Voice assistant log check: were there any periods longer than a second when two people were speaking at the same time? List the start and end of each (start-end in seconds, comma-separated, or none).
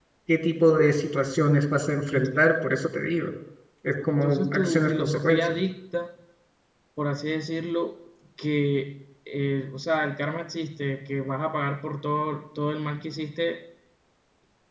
4.1-5.4